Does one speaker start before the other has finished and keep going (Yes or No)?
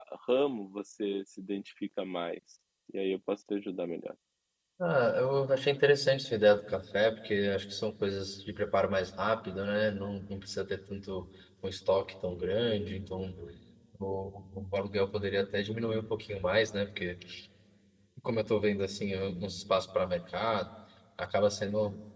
No